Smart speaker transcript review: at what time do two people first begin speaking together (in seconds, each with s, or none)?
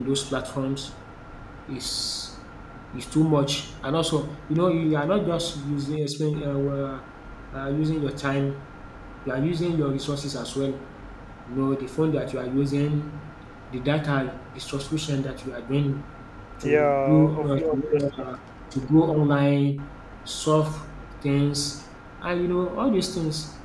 16.6 s